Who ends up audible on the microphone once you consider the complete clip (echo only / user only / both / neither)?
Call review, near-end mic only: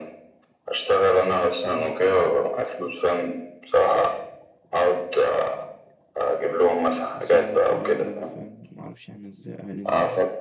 both